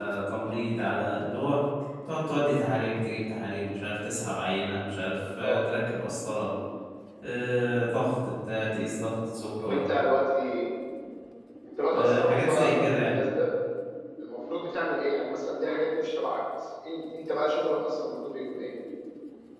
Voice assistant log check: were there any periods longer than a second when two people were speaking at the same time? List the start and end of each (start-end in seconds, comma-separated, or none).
11.9-13.2